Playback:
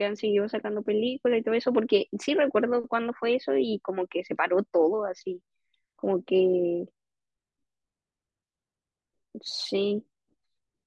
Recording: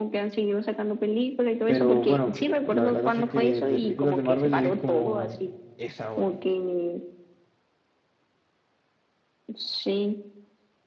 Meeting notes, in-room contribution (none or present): present